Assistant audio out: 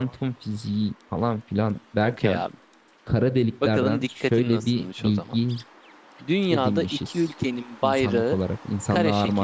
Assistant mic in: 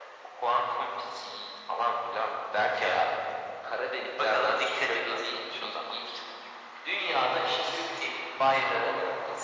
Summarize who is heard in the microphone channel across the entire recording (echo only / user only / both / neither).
echo only